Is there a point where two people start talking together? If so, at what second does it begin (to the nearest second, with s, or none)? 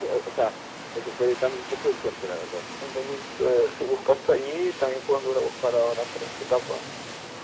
none